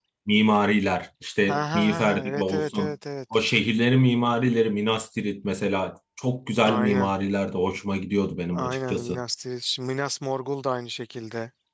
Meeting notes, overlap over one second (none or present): present